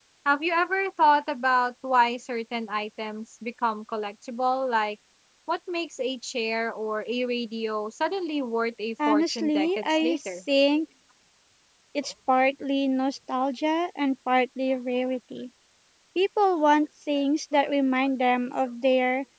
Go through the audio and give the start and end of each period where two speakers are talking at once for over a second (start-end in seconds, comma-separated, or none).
9.1-10.3